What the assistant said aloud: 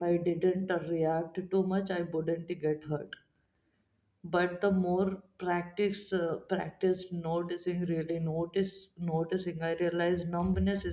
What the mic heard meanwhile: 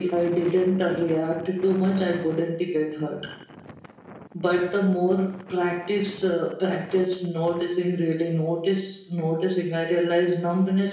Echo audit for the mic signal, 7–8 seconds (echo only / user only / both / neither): echo only